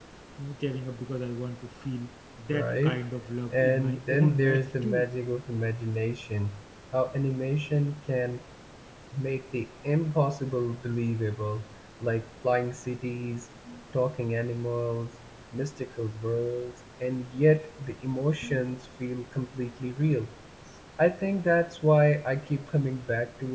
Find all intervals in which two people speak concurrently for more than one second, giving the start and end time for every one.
3.5-5.1

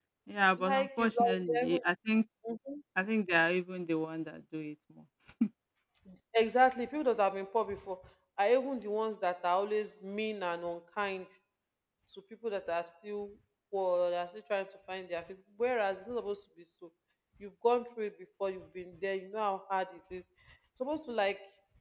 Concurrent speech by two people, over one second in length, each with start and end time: 0.6-1.8

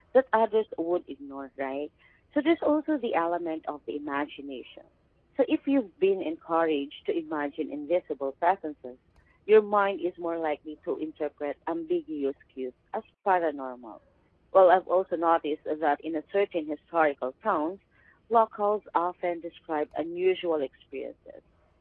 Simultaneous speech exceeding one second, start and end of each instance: none

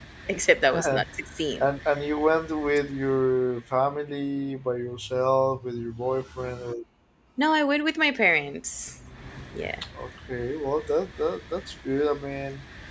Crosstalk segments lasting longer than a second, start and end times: none

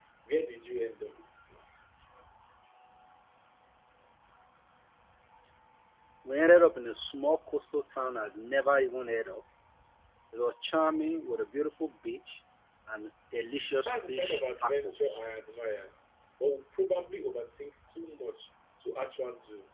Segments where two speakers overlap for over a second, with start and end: 13.9-15.1

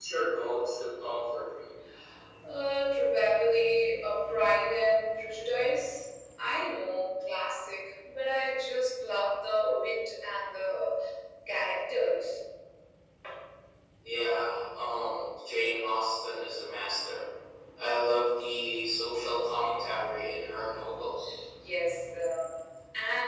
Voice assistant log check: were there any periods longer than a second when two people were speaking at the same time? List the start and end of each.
none

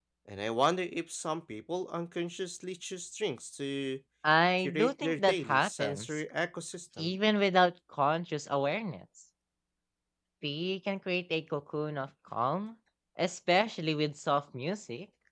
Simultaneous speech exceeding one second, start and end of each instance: 4.6-6.2

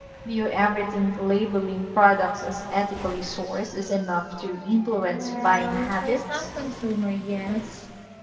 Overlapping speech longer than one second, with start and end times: 5.1-6.5

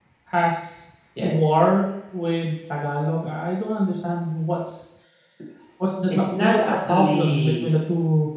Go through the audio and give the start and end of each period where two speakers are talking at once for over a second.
6.1-7.7

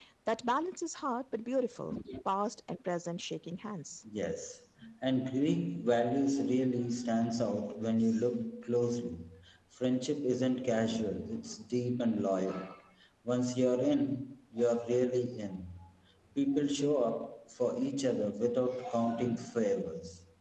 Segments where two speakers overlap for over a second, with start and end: none

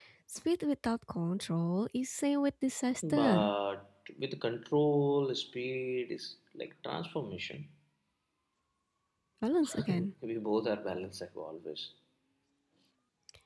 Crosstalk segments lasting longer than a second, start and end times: none

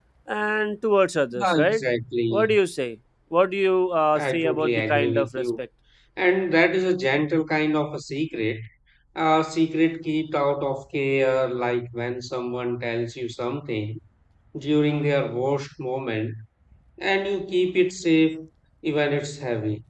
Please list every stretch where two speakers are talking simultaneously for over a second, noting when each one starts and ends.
4.2-5.5

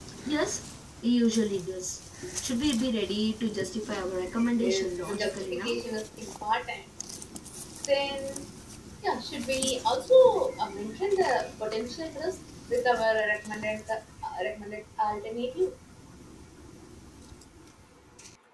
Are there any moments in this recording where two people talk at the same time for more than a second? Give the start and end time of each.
4.6-5.8

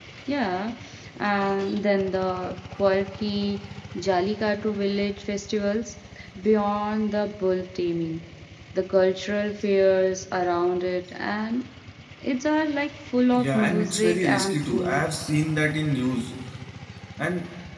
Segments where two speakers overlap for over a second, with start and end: 13.3-15.1

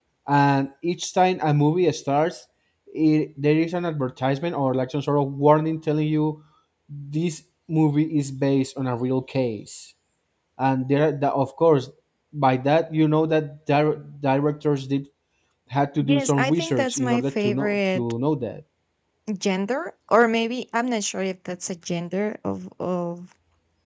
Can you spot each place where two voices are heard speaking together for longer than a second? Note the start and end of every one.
16.0-18.0

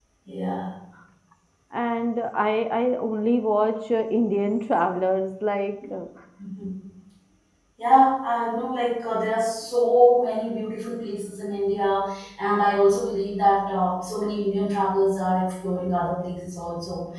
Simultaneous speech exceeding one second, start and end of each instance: none

